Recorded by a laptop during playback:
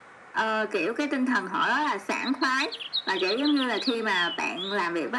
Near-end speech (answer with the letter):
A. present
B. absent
B